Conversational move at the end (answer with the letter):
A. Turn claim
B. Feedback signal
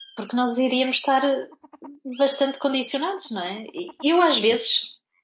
B